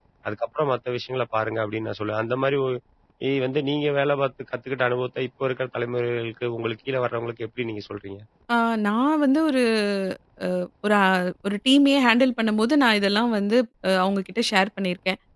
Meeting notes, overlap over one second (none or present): none